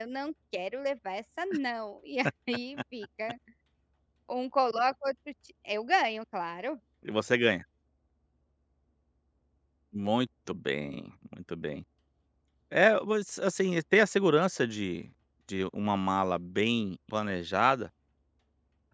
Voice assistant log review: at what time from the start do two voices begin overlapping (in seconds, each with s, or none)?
none